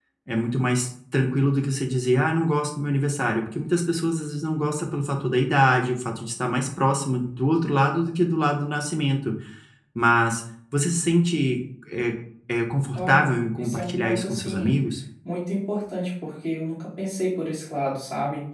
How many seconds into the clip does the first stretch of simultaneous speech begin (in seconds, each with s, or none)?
13.0 s